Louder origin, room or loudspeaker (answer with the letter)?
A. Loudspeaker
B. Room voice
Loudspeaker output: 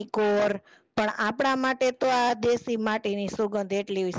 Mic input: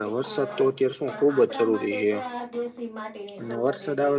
B